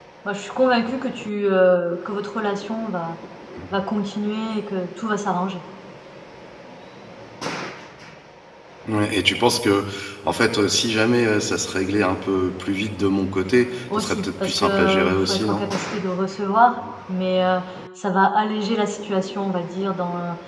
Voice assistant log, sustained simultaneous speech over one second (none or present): present